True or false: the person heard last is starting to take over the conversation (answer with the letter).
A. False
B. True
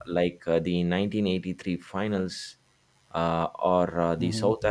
A